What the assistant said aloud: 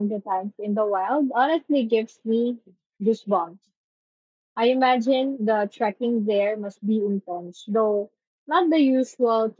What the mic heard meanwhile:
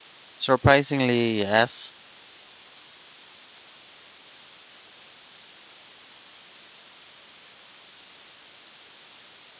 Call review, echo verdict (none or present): none